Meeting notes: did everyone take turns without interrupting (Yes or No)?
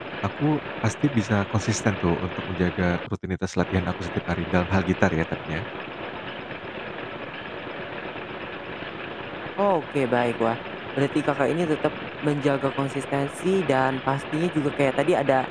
Yes